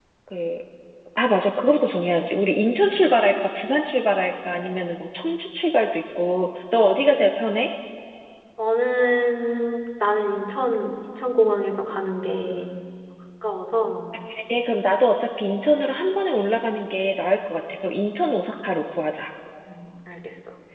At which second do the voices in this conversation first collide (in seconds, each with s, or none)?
none